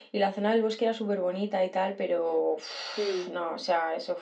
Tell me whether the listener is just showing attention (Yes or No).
Yes